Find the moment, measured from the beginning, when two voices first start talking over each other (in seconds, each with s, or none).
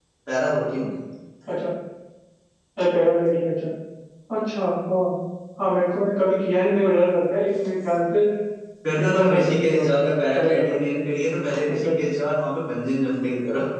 9.0 s